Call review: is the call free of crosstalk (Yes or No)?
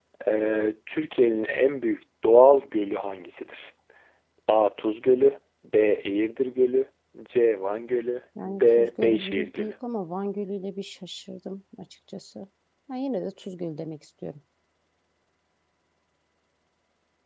No